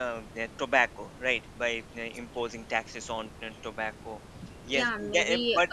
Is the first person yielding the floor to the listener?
Yes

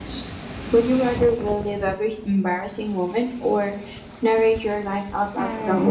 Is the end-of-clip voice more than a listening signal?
Yes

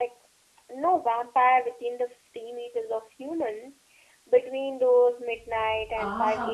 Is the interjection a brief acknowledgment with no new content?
No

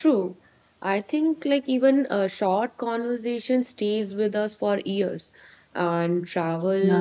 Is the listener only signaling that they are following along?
Yes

